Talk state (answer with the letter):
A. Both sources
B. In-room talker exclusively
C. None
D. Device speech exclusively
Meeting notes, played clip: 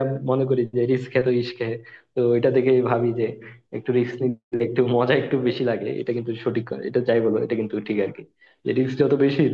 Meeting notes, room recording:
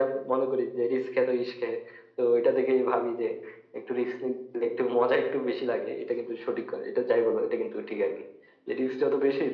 D